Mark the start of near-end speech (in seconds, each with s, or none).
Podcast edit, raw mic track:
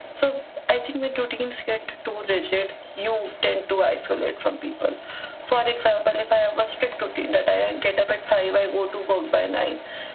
none